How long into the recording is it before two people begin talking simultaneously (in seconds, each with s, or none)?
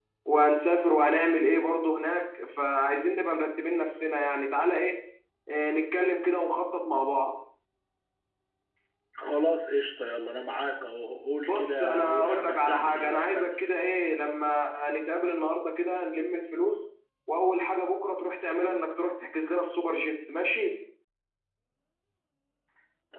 11.5 s